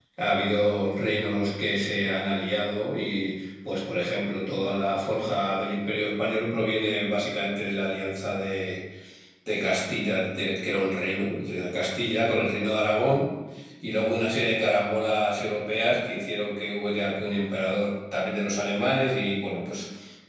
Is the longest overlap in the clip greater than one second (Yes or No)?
No